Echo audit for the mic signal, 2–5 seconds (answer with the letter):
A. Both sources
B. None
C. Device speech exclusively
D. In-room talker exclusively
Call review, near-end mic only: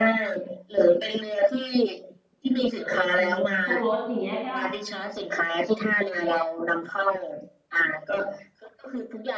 A